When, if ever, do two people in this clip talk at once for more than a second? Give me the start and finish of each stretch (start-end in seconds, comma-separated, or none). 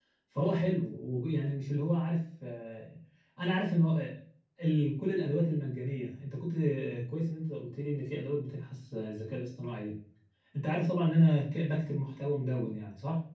none